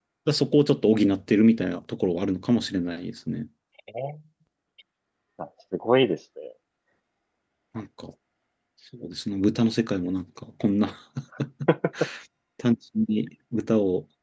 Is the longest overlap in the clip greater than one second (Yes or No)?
No